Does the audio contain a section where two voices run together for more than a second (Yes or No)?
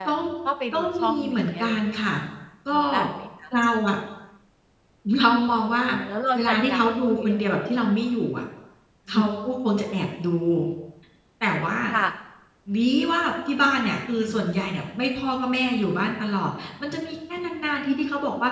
Yes